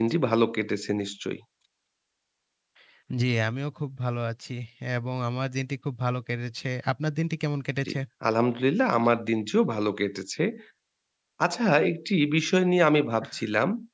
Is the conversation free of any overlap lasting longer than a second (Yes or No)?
Yes